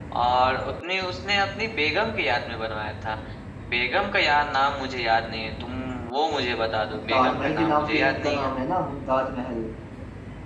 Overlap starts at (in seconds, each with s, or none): 6.9 s